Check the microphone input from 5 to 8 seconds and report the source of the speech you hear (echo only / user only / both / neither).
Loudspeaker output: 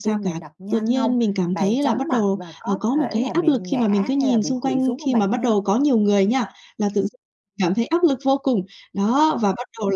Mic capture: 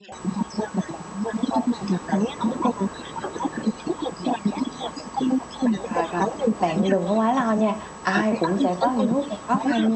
both